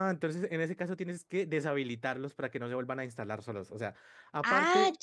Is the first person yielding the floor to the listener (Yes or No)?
No